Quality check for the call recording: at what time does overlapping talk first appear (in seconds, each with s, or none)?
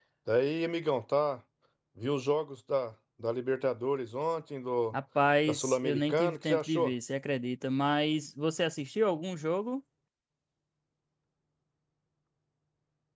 5.5 s